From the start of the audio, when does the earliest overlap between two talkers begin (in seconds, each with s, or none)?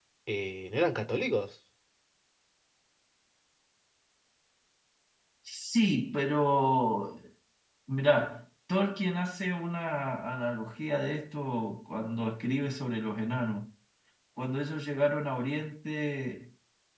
none